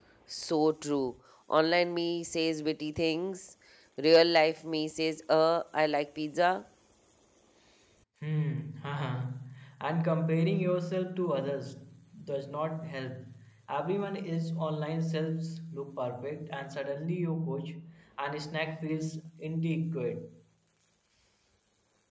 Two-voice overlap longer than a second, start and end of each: none

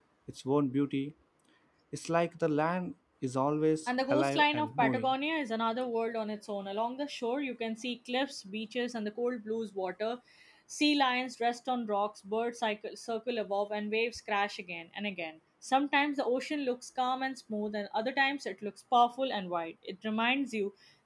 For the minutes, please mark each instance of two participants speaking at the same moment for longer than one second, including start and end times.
3.9-5.1

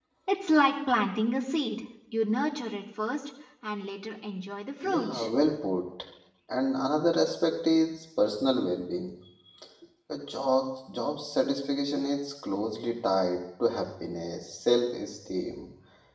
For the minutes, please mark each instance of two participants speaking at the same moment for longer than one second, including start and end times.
none

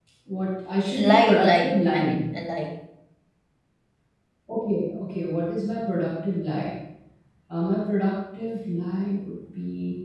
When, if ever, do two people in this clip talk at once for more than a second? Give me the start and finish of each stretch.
0.9-2.2

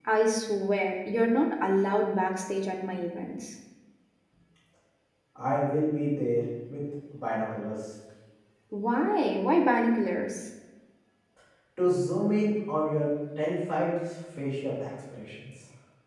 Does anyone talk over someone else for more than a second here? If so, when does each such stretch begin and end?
none

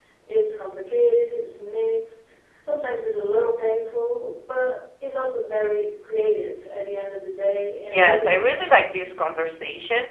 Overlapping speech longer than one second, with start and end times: 7.9-9.3

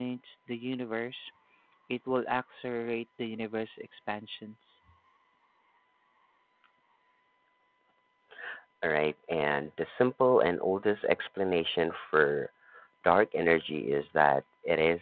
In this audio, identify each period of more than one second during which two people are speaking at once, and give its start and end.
none

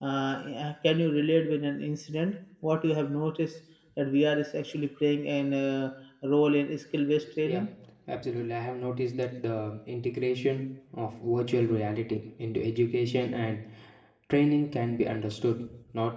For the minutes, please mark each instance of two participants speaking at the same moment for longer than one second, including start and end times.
none

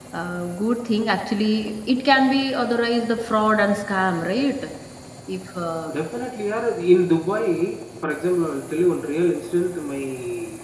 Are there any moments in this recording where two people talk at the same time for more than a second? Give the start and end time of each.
none

